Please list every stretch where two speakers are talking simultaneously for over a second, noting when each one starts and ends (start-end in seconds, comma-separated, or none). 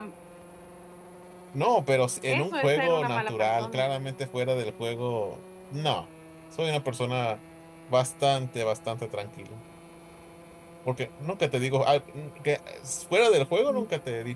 2.3-3.9